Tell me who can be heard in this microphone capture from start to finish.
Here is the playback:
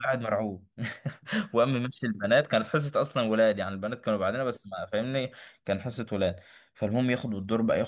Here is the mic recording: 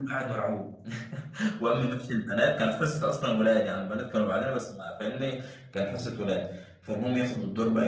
echo only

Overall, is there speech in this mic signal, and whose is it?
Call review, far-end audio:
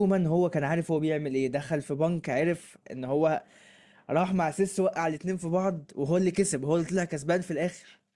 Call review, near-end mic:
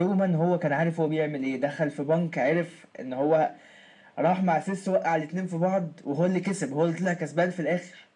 echo only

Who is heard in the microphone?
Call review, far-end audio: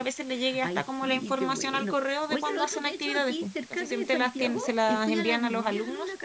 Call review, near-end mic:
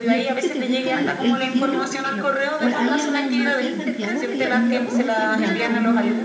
both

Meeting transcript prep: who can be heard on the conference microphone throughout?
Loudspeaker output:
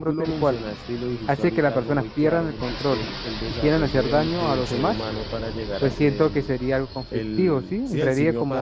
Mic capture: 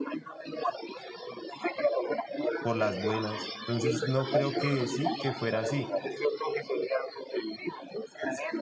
both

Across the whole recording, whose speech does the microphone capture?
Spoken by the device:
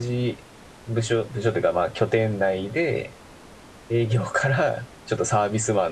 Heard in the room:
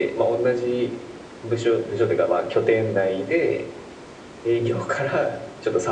echo only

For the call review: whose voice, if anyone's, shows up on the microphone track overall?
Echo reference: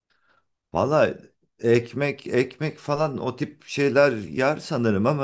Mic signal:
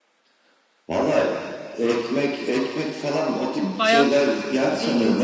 both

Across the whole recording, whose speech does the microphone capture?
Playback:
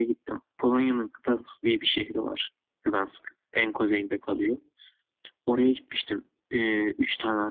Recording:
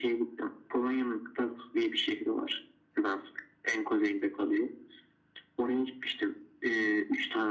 echo only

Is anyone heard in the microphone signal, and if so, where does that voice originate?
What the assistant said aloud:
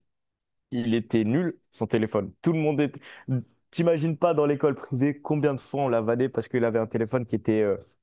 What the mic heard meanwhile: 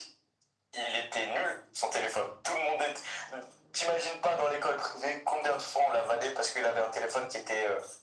echo only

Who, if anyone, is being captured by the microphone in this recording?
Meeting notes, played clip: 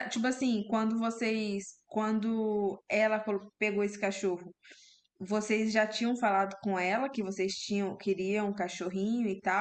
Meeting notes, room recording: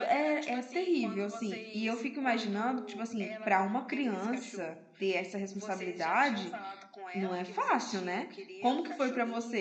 both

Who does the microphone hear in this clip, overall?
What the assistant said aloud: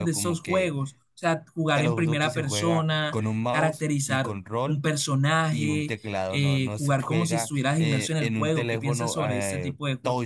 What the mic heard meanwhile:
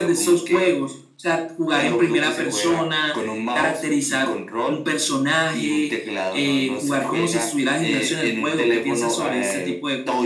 echo only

